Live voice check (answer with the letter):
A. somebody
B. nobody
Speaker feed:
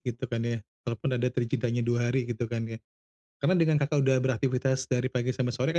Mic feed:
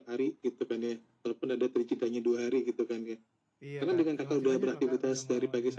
A